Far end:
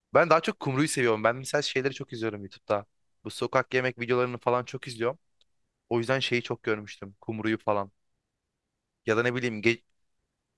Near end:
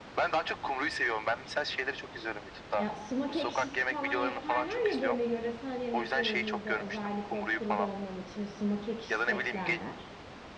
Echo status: present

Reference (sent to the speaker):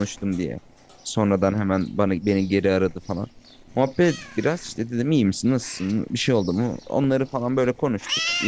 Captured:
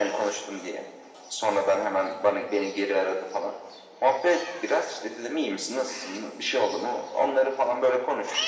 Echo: present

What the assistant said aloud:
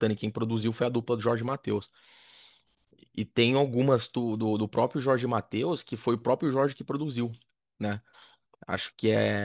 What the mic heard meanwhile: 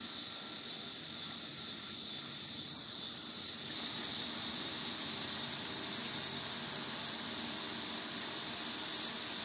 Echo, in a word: none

